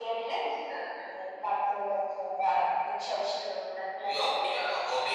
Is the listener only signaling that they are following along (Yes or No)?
No